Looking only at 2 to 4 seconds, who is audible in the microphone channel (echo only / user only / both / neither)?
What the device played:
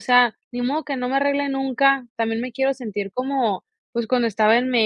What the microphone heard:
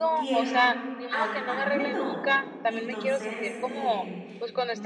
both